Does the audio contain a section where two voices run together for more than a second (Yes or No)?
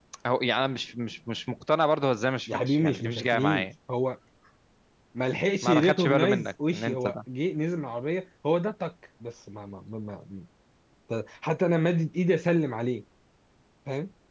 Yes